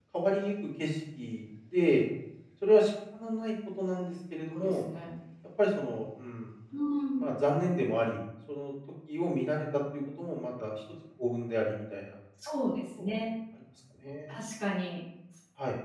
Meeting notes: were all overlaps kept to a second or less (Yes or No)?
Yes